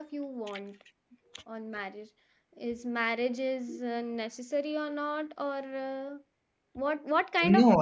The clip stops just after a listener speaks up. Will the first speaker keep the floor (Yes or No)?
No